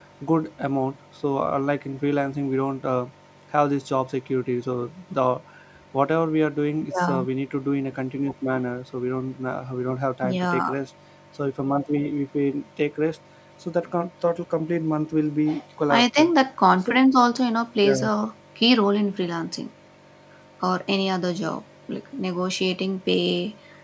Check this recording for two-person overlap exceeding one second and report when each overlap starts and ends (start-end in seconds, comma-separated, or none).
none